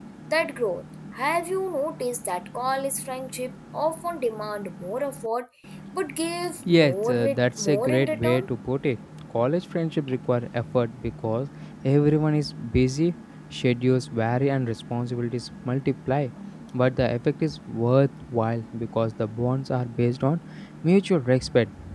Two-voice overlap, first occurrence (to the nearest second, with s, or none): 7 s